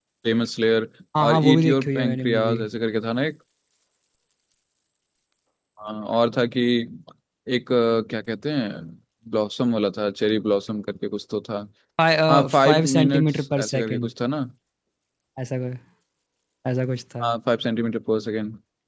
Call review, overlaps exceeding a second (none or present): present